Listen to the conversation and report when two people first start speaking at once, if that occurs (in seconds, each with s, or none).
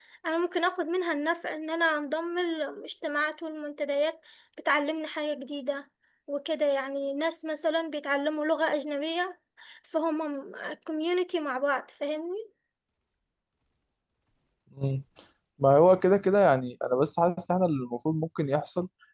none